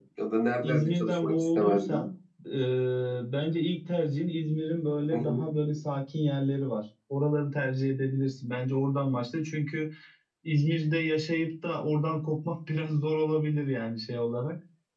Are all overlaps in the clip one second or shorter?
No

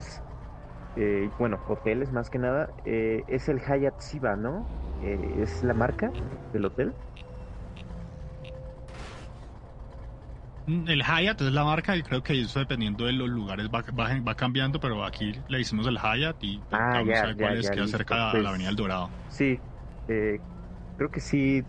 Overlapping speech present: Yes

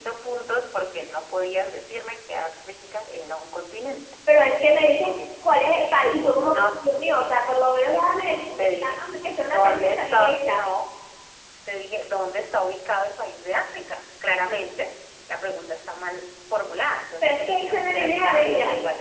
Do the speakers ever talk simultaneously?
Yes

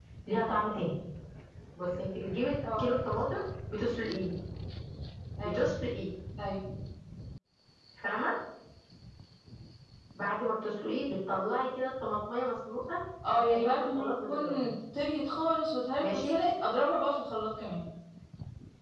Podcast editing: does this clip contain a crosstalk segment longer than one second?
Yes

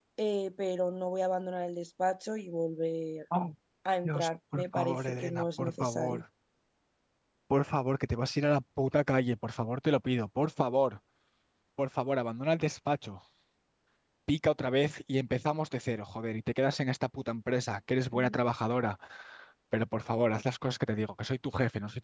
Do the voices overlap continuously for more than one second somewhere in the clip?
Yes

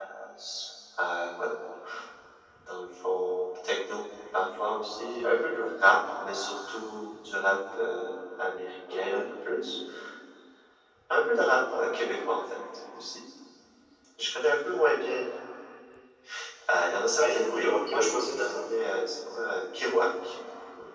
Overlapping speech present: Yes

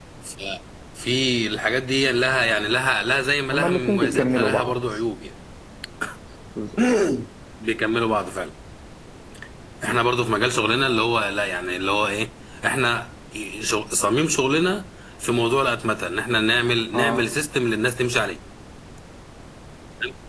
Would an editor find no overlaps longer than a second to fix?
No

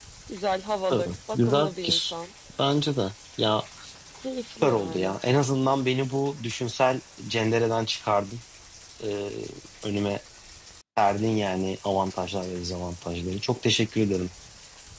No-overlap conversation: No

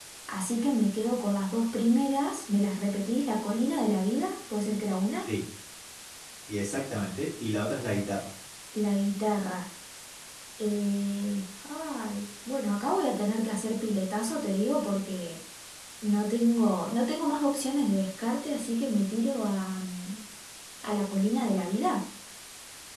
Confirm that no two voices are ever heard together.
Yes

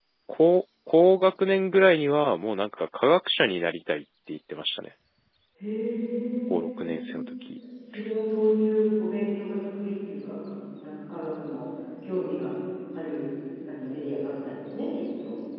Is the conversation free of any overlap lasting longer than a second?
Yes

